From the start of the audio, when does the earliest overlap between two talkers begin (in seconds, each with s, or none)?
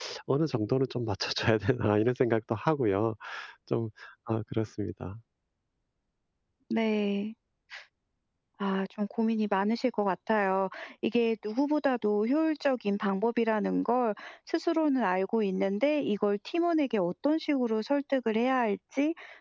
none